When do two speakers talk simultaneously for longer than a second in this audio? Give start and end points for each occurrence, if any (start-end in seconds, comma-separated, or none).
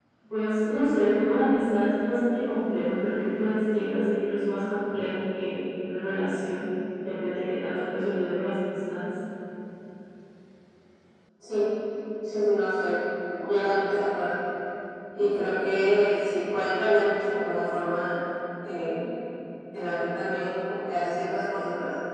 none